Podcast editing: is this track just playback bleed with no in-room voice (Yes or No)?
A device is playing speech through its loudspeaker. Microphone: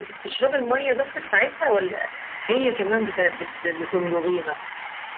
Yes